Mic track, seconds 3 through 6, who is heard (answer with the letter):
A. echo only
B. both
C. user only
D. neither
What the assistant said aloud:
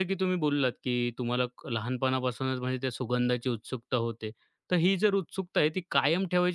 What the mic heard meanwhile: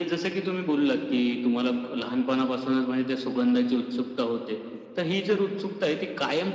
A